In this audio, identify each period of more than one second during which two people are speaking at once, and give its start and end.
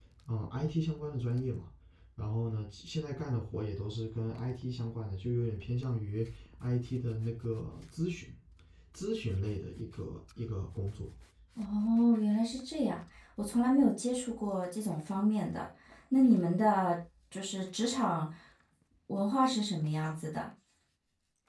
none

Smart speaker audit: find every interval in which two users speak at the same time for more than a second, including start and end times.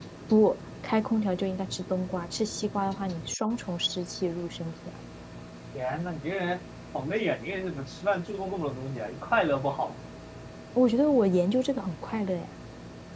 none

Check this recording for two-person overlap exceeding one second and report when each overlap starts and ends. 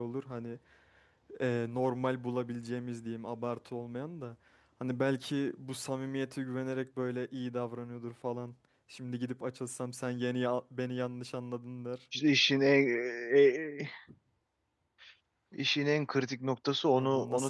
none

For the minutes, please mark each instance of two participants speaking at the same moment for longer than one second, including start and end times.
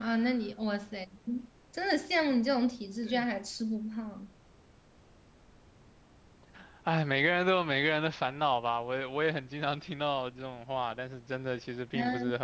none

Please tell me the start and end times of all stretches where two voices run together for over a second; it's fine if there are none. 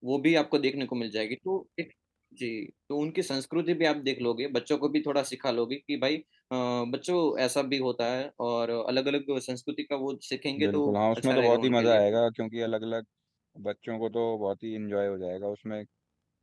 10.6-12.0

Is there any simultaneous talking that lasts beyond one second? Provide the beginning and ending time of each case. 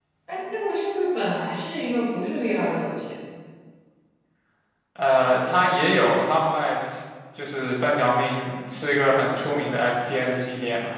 none

